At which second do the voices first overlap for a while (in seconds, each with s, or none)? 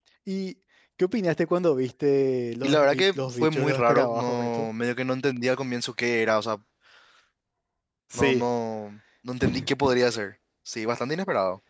2.6 s